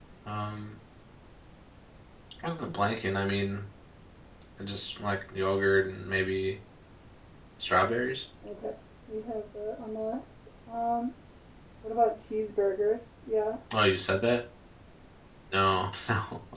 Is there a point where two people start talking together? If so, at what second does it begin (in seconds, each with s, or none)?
none